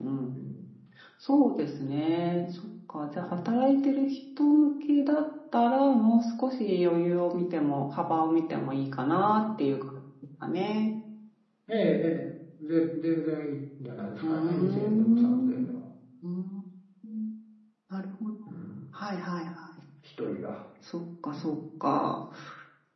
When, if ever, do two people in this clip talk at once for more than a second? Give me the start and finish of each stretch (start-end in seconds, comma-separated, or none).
14.2-15.7